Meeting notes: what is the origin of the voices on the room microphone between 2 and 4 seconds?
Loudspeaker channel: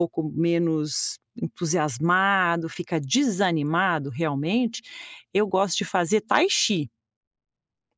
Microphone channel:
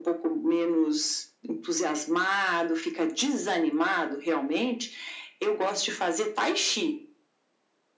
echo only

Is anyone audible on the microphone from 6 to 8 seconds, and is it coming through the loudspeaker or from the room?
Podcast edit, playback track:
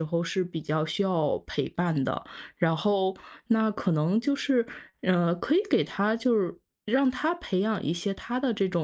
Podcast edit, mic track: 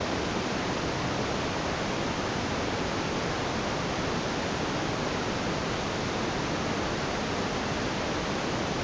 neither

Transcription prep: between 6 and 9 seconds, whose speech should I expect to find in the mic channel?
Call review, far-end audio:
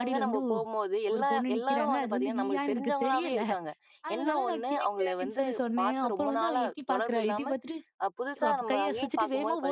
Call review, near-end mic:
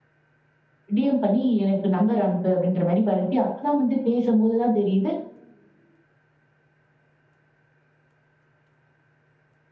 neither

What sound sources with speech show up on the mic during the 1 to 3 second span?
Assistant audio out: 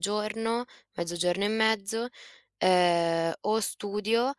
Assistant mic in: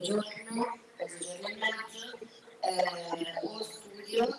echo only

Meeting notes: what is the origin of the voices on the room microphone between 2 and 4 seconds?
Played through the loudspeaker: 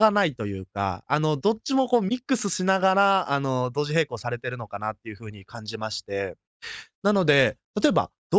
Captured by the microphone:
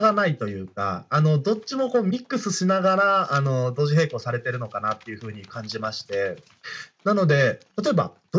echo only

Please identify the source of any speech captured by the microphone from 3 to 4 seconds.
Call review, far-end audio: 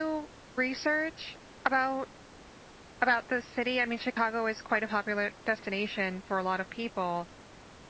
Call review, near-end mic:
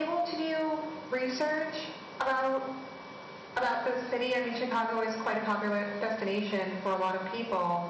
echo only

